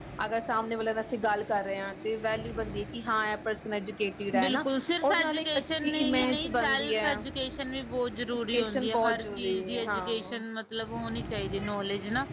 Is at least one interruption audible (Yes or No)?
Yes